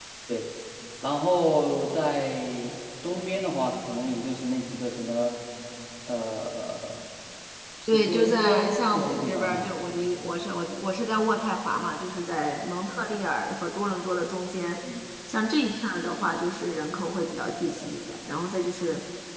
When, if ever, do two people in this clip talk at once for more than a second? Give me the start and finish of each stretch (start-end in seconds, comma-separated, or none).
7.9-9.7